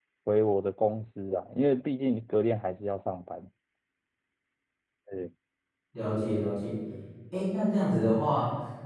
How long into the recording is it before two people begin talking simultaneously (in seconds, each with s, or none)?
none